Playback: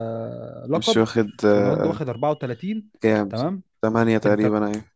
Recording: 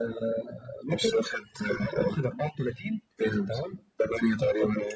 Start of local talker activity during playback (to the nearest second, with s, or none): none